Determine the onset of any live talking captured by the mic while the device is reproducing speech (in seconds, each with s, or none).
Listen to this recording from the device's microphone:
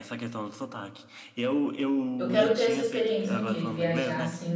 2.2 s